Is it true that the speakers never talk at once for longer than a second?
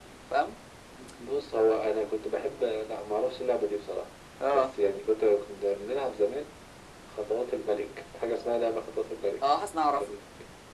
Yes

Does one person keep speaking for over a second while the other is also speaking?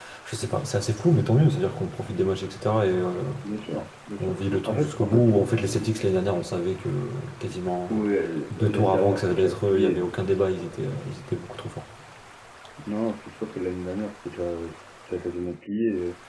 Yes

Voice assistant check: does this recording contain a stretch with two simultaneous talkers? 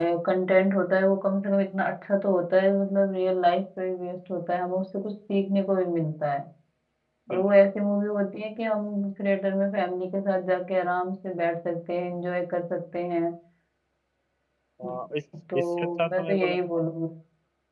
Yes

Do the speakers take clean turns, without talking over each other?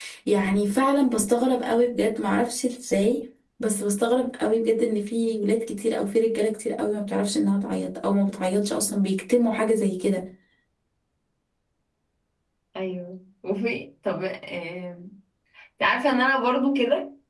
Yes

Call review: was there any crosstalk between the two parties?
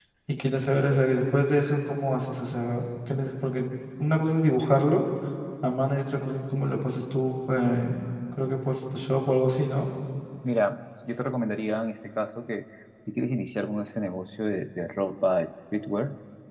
No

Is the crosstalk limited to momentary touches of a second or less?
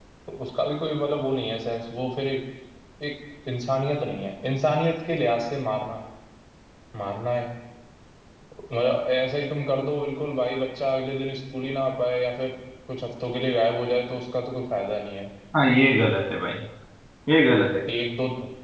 Yes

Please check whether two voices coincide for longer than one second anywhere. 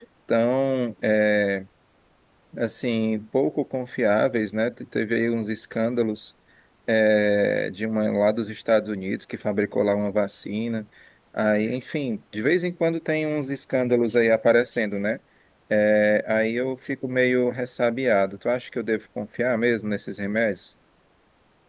No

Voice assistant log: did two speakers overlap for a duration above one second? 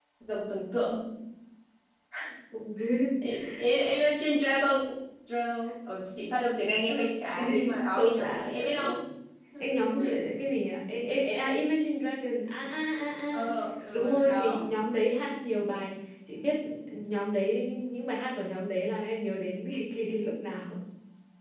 Yes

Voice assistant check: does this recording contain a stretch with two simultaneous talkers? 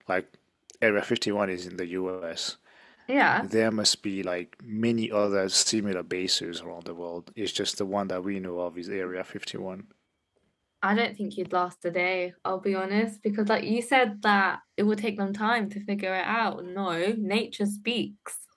No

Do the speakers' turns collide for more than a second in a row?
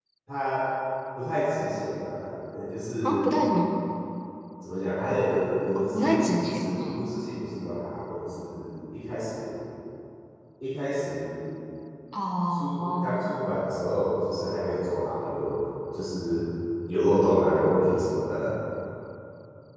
Yes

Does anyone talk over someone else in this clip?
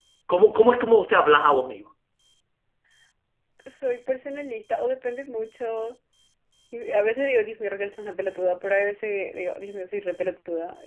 No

